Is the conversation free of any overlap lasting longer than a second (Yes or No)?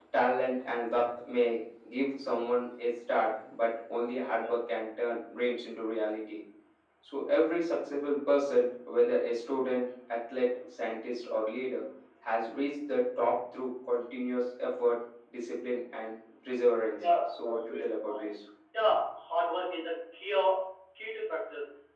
No